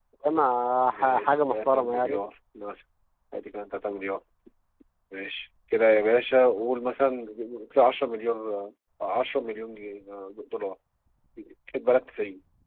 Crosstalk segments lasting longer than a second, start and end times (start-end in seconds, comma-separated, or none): 0.9-2.2